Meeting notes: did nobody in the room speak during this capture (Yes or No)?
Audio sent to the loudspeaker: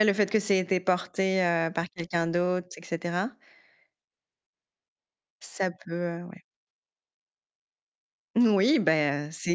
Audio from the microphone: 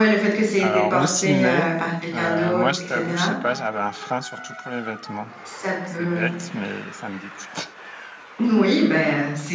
No